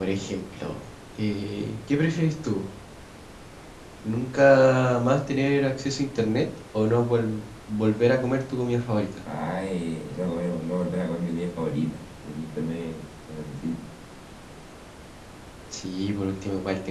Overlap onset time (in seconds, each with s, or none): none